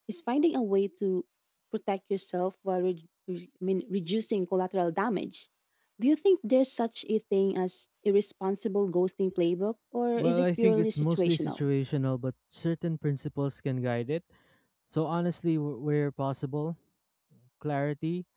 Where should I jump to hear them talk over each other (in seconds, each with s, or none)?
10.2 s